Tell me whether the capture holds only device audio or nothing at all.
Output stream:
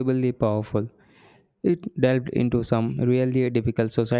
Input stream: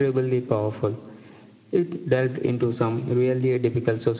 Yes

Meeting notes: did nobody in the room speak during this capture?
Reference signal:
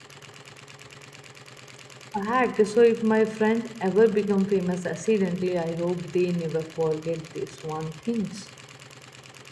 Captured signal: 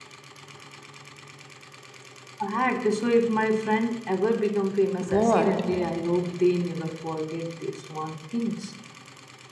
No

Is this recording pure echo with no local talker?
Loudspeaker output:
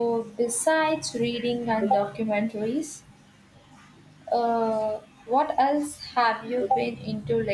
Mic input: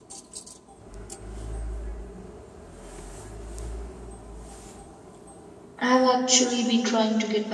No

